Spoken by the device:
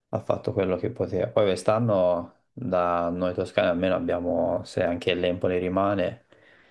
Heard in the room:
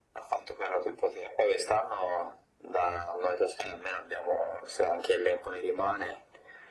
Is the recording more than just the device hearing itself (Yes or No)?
No